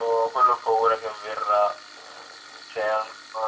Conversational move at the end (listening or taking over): listening